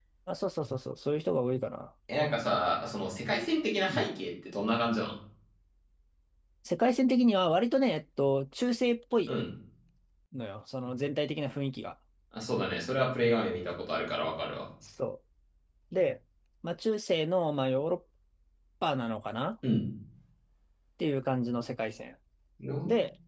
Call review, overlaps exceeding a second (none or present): none